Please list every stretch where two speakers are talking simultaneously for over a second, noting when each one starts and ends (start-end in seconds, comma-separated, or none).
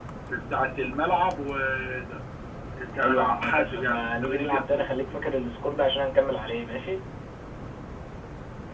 2.9-5.2